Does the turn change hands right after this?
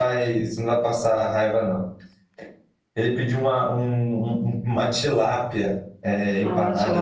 No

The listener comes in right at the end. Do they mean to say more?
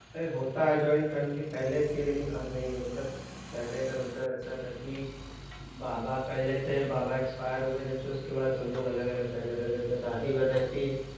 No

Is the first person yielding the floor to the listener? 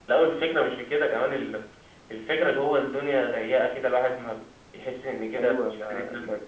Yes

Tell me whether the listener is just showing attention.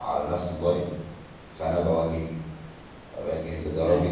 Yes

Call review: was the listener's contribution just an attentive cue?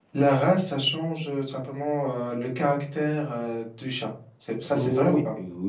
No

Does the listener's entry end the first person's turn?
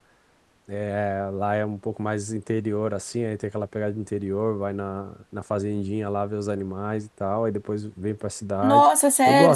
Yes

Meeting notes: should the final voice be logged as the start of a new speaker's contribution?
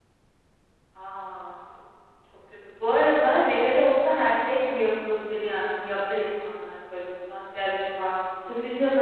Yes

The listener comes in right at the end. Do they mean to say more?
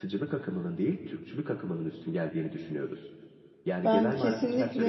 Yes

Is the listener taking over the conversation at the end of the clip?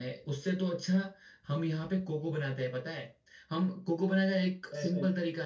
No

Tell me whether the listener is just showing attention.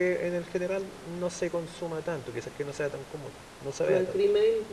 No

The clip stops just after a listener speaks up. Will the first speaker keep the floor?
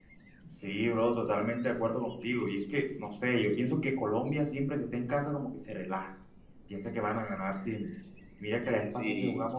Yes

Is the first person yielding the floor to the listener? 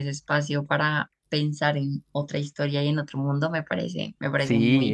Yes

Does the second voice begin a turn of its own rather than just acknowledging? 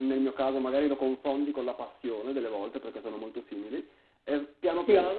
No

